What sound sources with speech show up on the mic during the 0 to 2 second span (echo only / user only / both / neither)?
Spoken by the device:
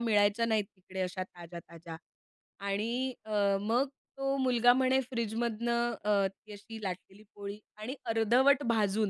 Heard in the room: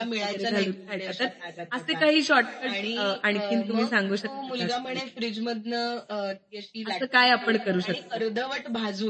both